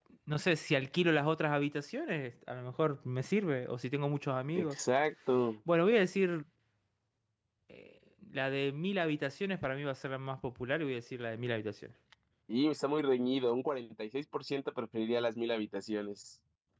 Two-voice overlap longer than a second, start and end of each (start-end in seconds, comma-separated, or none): none